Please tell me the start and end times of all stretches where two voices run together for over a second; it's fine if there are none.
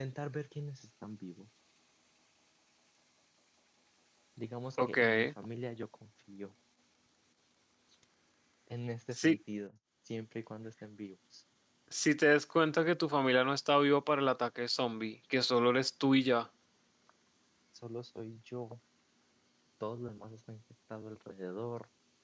none

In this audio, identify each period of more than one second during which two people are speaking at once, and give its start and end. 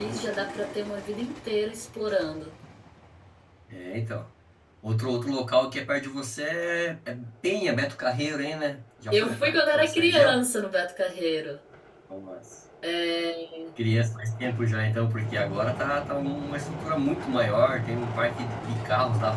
9.1-10.4

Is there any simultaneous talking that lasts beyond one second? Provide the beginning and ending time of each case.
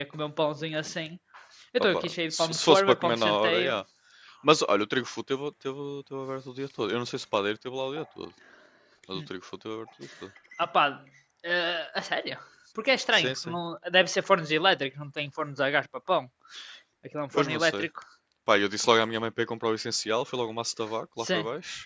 1.9-3.8

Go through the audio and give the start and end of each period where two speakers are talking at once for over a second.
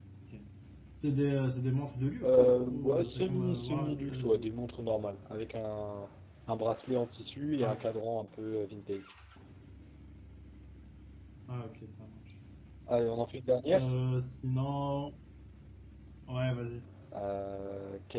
2.2-4.5

